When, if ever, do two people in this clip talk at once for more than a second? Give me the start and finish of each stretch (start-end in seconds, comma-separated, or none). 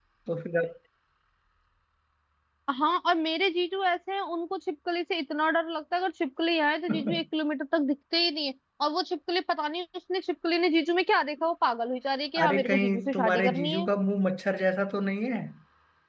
12.4-13.9